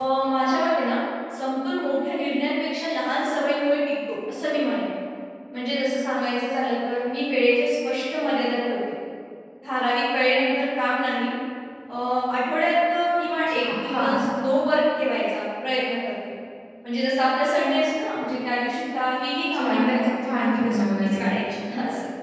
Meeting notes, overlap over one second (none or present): present